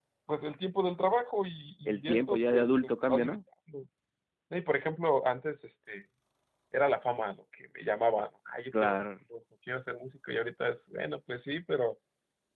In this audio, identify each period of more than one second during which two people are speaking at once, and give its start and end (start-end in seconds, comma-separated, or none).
1.9-3.4